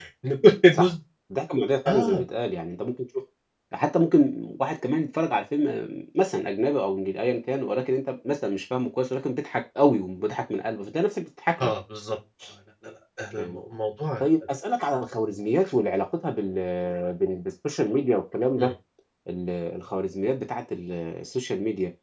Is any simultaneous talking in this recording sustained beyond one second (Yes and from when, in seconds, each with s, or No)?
No